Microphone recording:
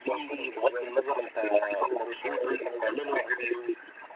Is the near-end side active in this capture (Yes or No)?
No